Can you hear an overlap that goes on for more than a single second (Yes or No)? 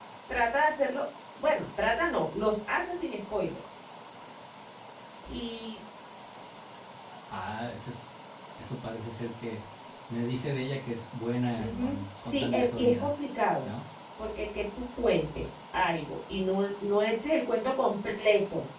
Yes